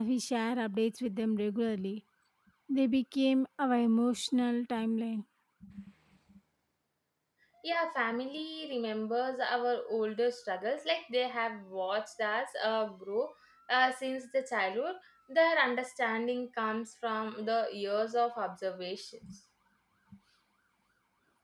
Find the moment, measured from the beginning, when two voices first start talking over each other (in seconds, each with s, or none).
none